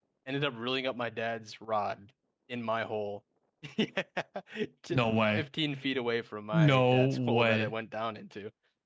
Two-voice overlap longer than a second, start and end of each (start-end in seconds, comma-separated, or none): 6.5-7.7